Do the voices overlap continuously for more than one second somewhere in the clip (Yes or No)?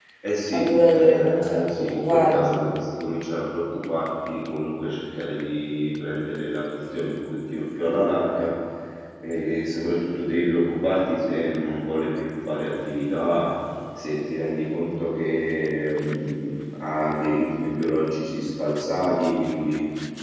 Yes